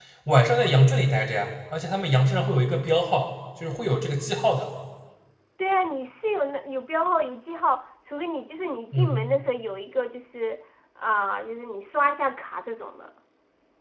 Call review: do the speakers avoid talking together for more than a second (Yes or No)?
Yes